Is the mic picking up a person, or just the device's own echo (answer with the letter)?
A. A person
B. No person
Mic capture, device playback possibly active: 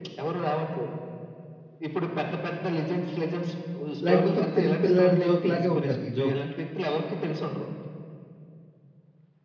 A